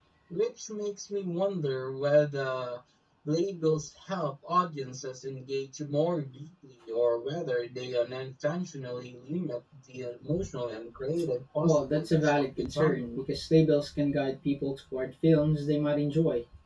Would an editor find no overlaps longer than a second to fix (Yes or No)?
No